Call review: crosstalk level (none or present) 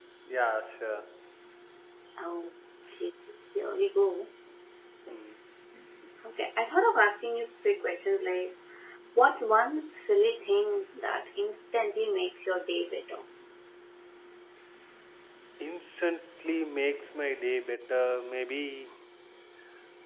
none